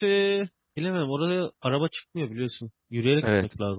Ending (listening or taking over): taking over